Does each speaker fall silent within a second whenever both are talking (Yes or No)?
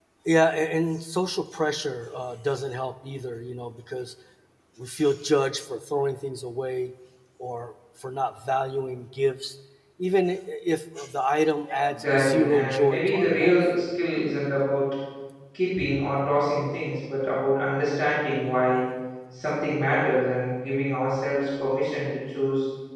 No